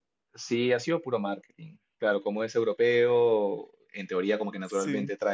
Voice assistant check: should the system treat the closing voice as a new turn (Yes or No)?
No